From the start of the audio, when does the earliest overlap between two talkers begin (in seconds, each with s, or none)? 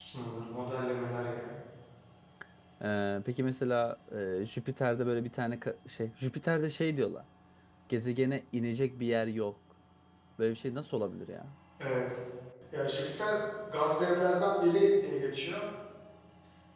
none